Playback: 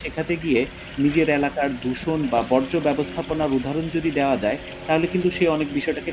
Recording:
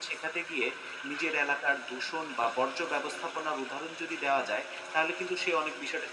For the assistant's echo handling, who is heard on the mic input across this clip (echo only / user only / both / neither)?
echo only